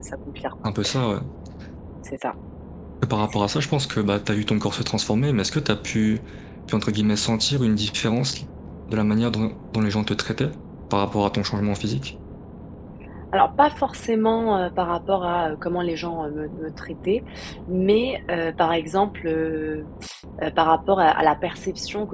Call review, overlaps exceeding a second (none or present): none